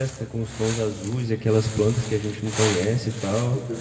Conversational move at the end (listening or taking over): taking over